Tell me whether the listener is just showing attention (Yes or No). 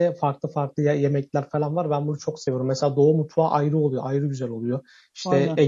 Yes